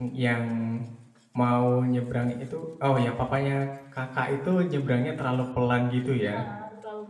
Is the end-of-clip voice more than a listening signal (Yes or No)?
Yes